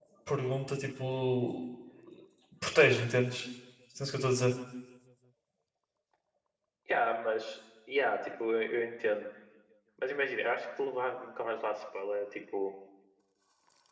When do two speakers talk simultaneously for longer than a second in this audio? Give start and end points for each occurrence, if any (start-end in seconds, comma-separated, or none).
none